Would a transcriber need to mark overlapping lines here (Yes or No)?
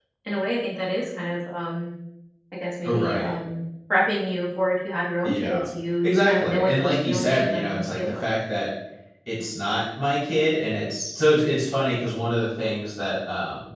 Yes